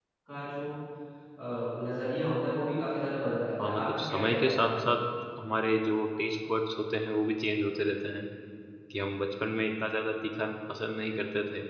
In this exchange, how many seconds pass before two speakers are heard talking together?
4 s

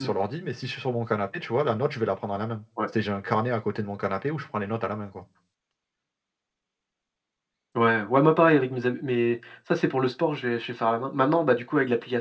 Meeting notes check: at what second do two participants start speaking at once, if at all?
none

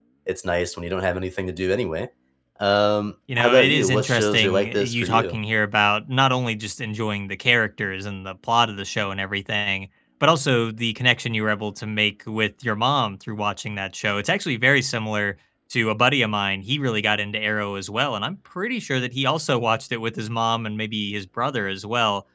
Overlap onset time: 3 s

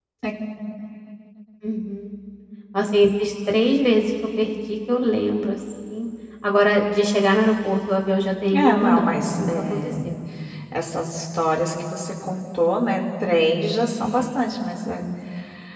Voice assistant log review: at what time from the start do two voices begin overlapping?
9 s

